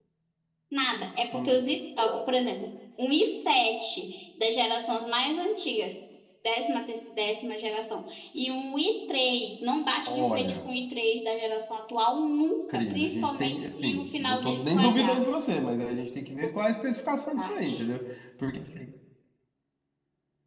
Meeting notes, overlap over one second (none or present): present